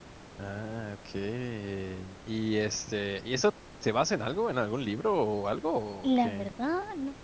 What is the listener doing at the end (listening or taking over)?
taking over